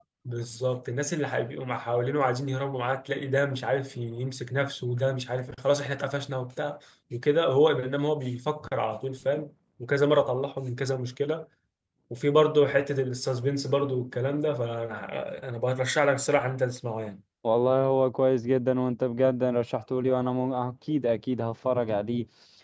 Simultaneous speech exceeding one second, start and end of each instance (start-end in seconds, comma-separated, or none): none